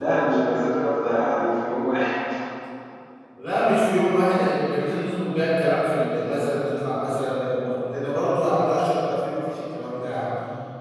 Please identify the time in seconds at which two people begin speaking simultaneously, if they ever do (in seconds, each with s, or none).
none